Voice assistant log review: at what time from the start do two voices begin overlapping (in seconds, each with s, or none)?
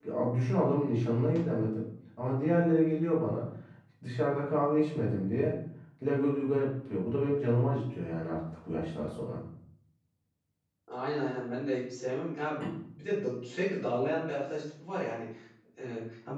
none